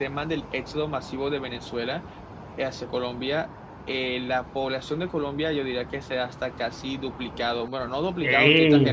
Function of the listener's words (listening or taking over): taking over